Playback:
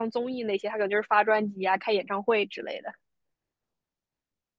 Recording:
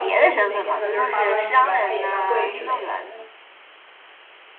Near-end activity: present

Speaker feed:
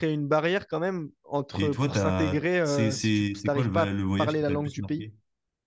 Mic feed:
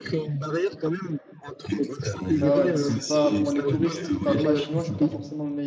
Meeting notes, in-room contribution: present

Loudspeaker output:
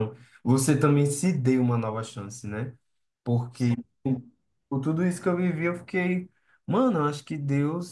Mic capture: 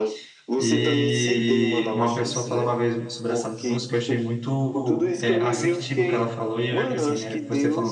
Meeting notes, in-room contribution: present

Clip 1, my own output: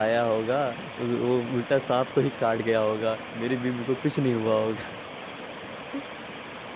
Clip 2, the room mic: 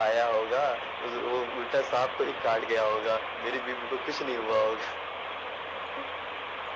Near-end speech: none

